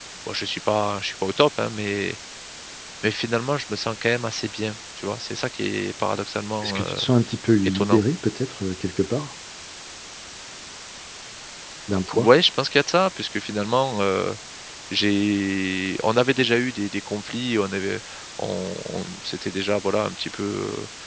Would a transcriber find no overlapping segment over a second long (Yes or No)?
Yes